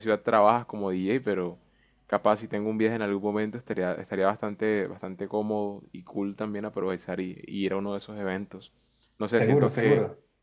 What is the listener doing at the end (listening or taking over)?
listening